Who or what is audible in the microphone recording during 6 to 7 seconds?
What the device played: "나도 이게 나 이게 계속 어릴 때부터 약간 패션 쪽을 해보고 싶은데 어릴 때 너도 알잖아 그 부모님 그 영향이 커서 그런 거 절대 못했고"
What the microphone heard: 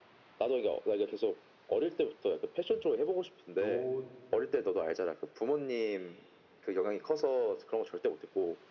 echo only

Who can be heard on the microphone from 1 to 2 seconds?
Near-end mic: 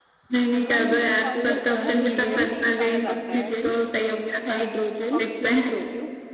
both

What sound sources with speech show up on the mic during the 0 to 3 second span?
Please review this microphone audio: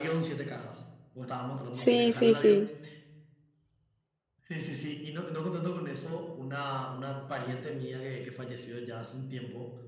both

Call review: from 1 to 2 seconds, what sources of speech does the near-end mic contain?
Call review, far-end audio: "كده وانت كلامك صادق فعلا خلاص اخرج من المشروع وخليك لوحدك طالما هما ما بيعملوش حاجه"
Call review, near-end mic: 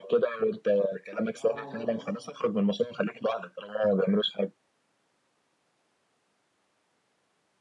both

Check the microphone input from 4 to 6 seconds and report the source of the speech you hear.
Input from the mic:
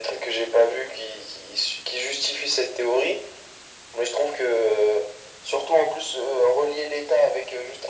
echo only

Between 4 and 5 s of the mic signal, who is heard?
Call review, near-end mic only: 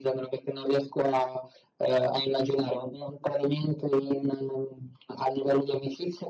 echo only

